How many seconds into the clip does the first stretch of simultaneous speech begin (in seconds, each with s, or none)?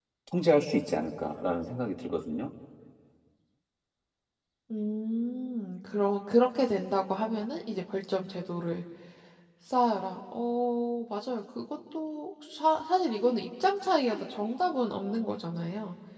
none